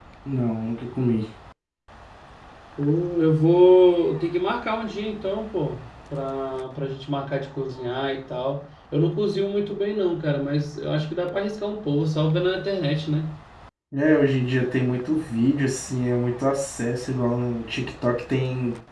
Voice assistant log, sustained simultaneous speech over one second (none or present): none